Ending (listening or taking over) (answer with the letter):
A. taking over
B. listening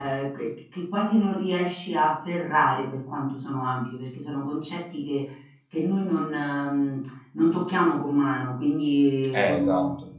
B